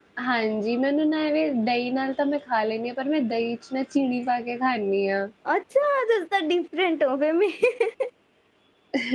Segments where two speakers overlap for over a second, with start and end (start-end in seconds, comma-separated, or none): none